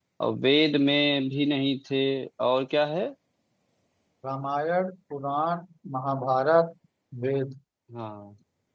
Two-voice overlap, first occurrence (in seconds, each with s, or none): none